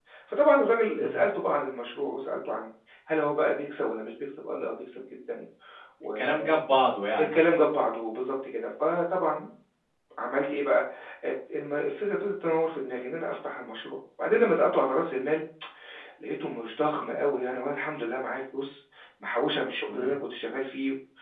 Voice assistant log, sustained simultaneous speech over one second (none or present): none